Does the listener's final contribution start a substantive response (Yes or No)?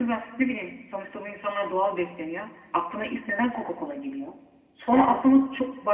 No